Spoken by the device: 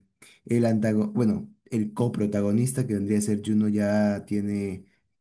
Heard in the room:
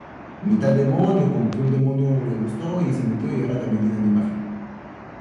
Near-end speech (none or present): present